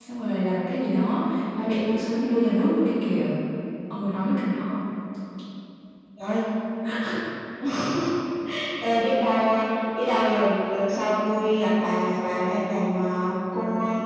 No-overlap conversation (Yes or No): Yes